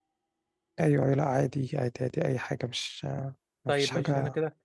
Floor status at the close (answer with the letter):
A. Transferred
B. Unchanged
A